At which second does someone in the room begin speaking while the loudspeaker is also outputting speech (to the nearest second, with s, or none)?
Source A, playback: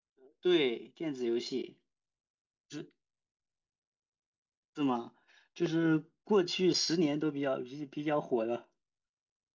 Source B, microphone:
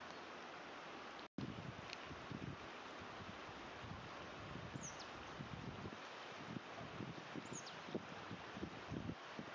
none